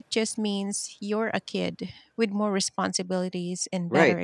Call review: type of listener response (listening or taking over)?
taking over